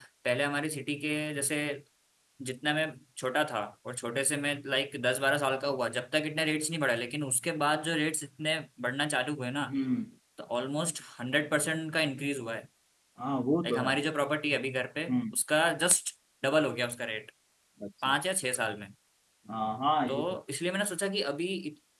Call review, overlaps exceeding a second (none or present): none